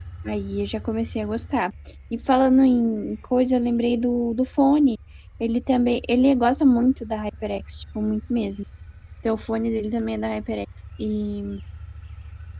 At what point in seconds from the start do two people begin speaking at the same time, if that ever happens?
none

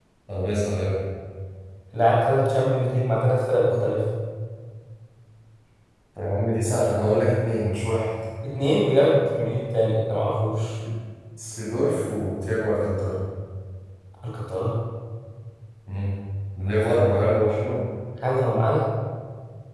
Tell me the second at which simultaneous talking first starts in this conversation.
none

